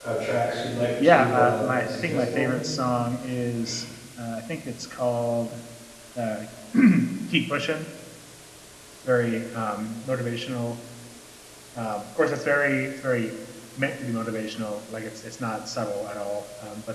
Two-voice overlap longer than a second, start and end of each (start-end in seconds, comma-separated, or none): 1.0-2.5